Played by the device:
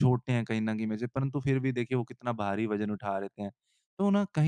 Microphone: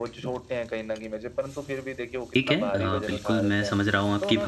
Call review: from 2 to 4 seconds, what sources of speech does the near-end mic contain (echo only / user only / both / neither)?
both